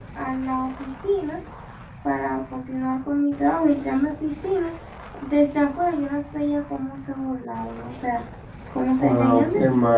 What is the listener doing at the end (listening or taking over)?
taking over